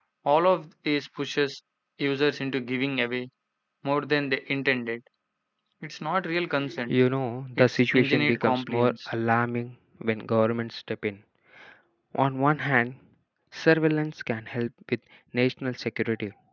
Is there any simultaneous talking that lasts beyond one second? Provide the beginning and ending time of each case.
7.6-9.1

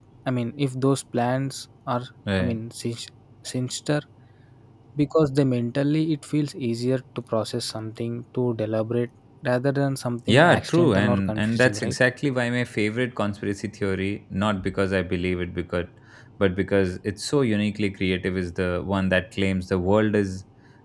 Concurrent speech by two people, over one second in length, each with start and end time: 10.3-12.0

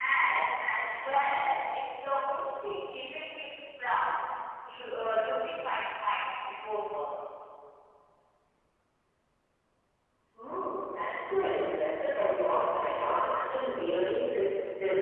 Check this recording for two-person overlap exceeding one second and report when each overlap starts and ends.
none

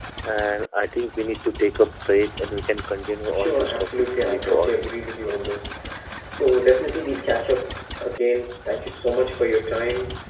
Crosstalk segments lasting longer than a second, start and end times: 3.3-4.8

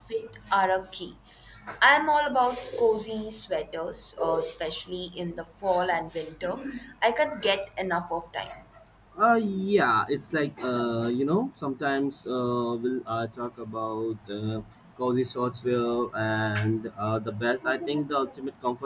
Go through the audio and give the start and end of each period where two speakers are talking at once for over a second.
none

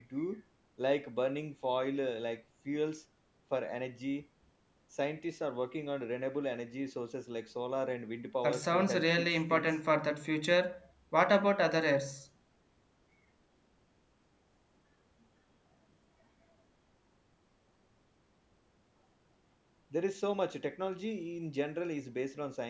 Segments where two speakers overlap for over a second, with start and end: 8.4-9.7

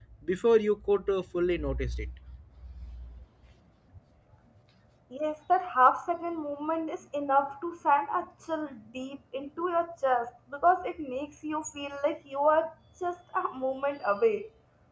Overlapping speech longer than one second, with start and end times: none

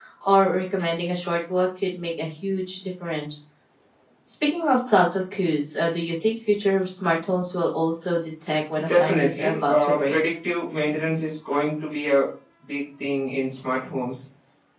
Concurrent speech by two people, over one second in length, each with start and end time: 8.8-10.2

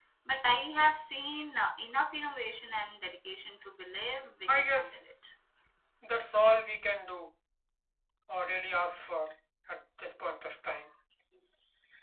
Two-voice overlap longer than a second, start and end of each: none

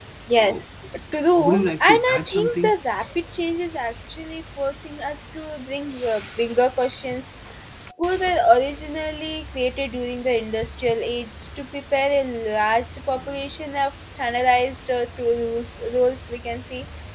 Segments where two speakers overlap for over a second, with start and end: 1.4-2.7

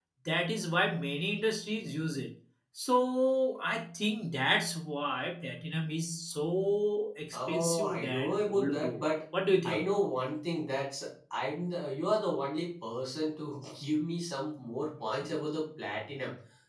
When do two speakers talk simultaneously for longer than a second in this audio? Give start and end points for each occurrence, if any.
7.3-9.0

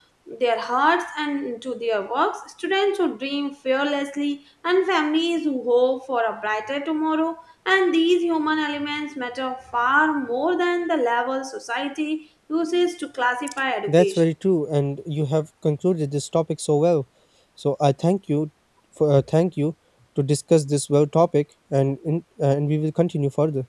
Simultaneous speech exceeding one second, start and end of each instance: none

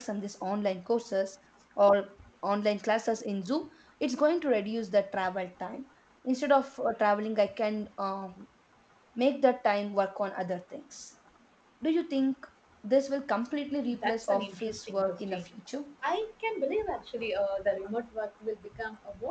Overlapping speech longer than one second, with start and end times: 14.0-15.4

